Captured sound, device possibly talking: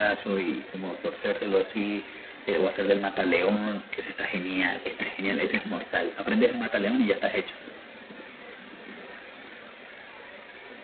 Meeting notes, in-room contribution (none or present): none